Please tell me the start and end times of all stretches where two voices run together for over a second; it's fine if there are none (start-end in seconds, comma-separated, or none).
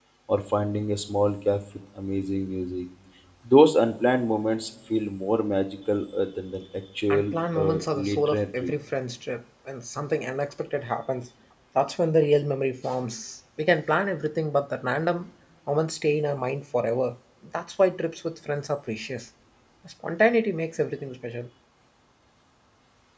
7.1-8.7